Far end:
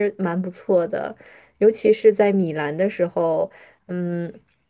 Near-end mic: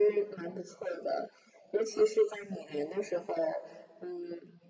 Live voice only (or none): none